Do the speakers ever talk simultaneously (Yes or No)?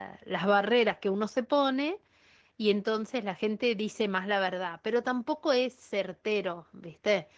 No